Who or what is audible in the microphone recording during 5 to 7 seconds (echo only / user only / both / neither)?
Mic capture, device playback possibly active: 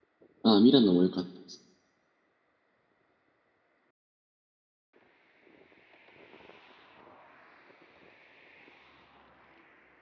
neither